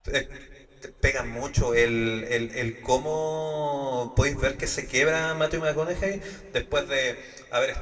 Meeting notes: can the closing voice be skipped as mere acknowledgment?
Yes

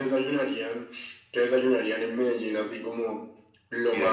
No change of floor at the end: No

